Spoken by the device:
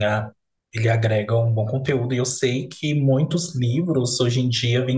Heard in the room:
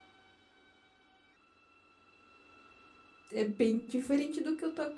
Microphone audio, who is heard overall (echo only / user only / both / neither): user only